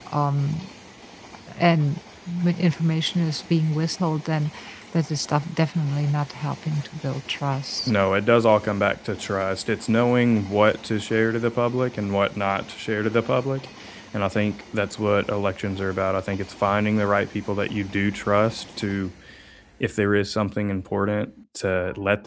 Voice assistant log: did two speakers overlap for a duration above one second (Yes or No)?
No